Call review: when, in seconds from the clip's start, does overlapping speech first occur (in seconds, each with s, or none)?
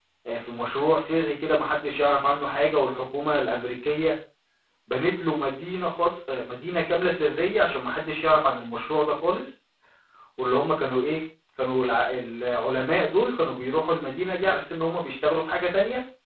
none